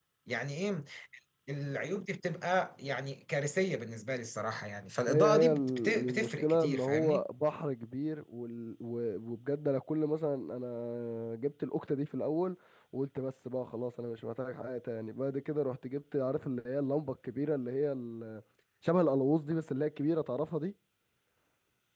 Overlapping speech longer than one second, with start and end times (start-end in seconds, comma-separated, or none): 5.1-7.2